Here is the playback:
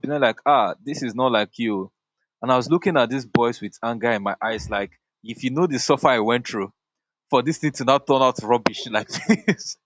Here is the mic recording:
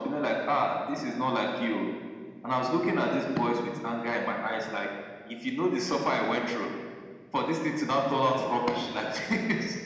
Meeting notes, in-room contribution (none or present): none